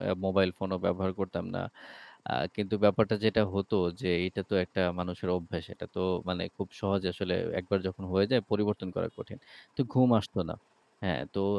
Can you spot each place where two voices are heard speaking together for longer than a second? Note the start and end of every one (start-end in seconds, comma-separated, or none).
none